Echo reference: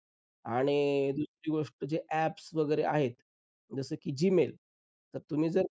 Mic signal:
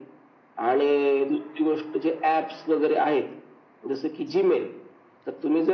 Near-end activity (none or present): none